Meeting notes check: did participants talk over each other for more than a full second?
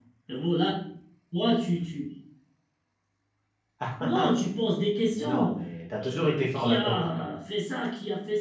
Yes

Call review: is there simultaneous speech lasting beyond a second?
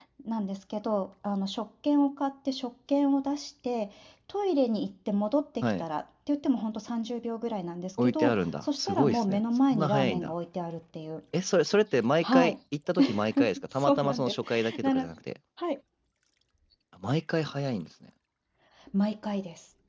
Yes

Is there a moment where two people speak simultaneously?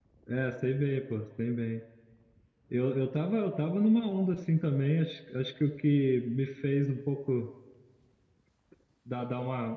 No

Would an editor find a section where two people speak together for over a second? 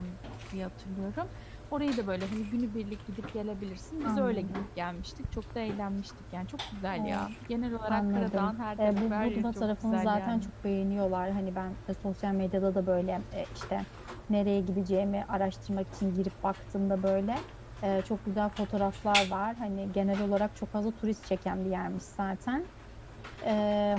Yes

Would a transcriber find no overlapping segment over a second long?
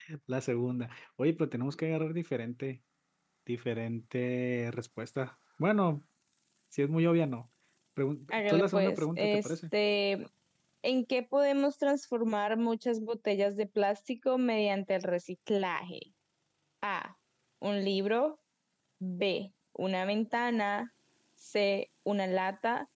No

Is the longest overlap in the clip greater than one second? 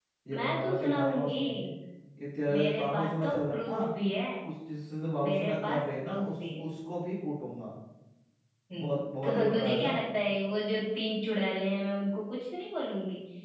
Yes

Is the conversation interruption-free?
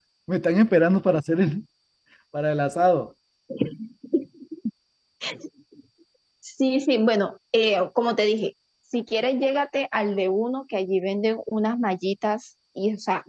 Yes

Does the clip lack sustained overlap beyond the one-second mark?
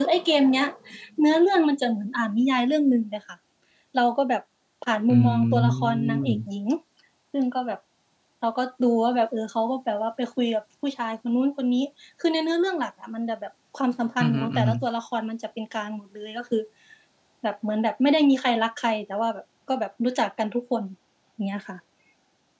No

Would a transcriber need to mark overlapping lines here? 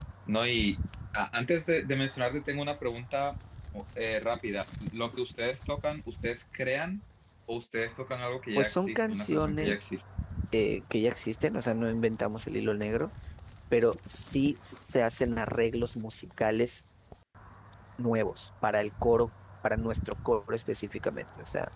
Yes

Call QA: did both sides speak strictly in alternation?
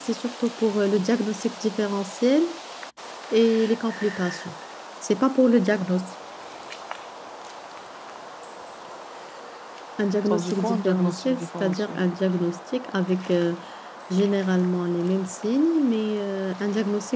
No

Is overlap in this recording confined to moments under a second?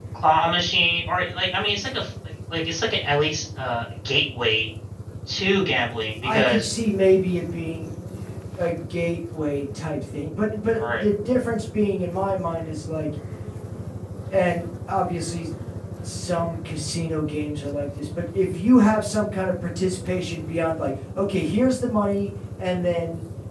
Yes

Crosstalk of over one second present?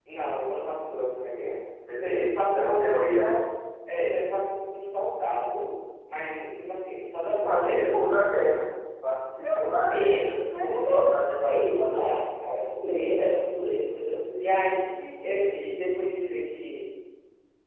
Yes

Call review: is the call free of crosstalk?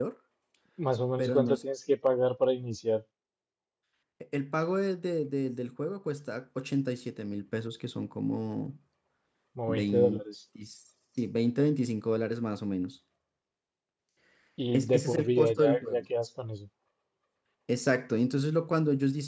No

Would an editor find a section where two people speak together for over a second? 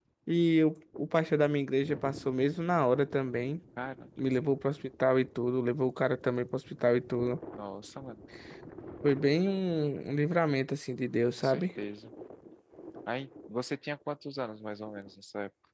No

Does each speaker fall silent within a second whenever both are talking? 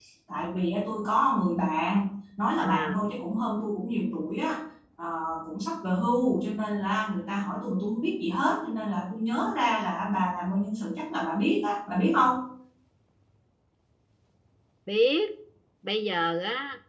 Yes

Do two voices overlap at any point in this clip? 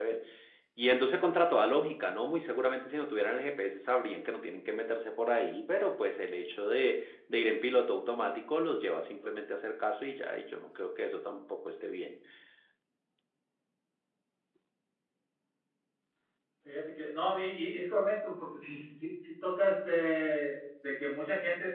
No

